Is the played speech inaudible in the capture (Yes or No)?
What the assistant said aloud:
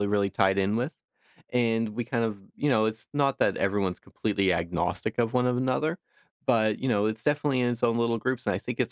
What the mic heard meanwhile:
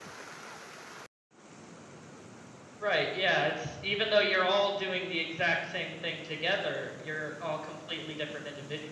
Yes